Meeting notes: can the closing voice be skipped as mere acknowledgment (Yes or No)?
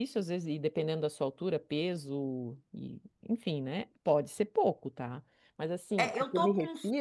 No